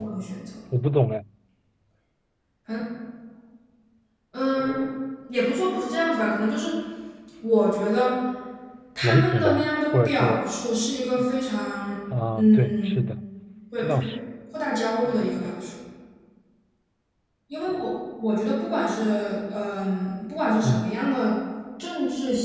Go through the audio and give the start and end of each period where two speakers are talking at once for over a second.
9.0-10.4

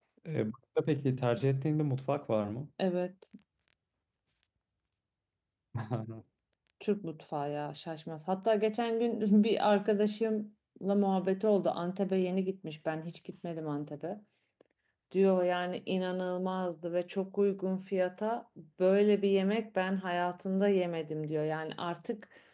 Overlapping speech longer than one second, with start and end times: none

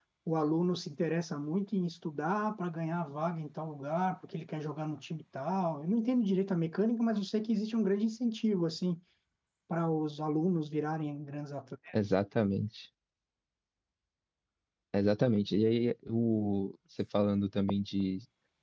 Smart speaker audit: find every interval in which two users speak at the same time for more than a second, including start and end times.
none

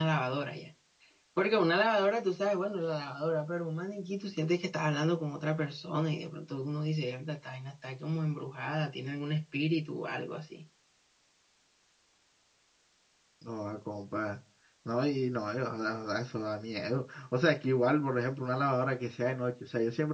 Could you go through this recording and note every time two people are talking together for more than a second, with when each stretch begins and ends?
none

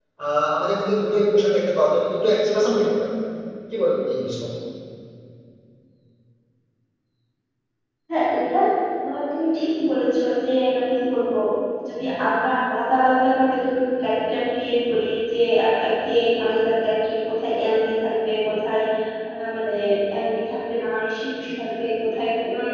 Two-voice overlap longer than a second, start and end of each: none

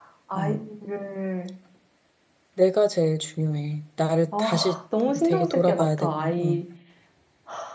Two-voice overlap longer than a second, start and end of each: 4.4-6.6

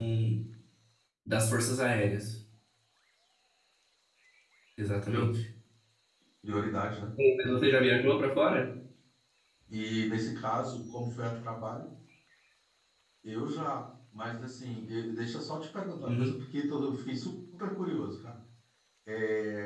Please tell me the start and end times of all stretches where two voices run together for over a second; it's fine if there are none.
none

